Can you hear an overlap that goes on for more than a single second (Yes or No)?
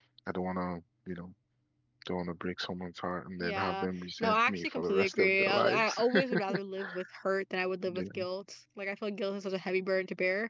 Yes